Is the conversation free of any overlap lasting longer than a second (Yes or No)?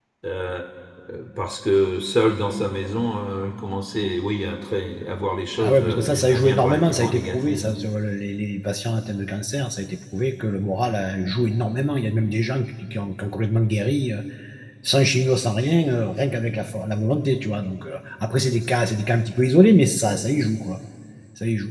No